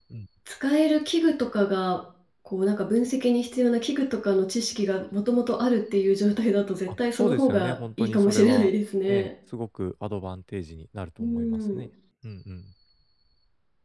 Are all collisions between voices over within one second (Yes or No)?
No